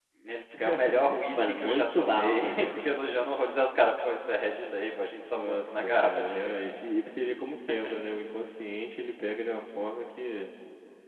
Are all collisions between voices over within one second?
No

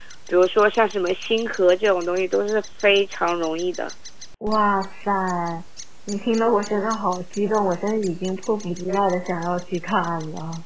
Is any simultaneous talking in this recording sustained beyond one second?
No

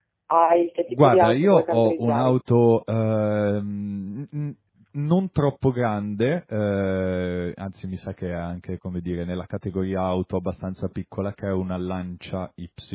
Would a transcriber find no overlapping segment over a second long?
No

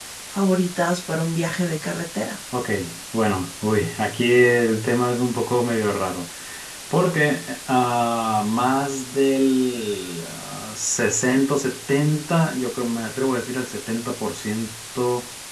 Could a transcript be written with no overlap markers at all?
Yes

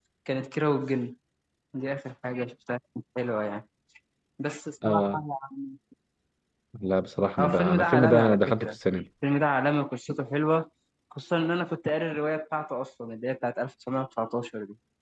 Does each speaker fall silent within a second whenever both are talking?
No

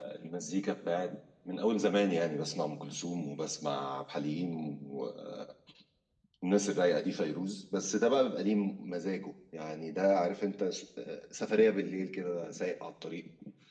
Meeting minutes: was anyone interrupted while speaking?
No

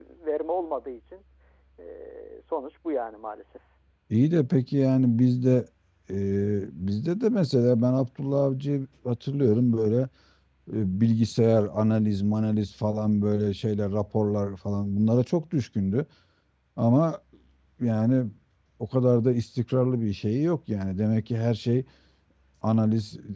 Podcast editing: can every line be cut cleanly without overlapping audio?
Yes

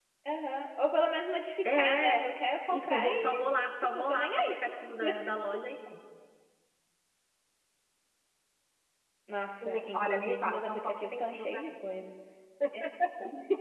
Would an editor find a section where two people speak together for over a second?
Yes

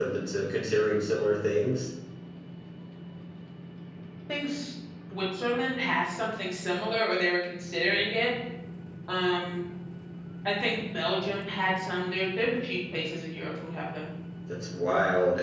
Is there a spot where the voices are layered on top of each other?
No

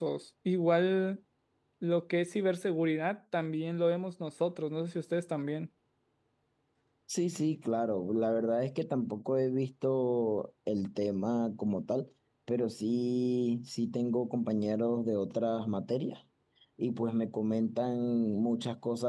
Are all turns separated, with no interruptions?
Yes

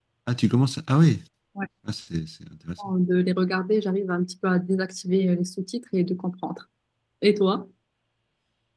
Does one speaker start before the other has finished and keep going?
No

